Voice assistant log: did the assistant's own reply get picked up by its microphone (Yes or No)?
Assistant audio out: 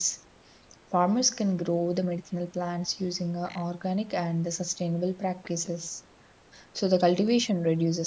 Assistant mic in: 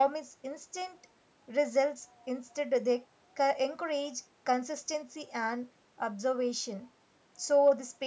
No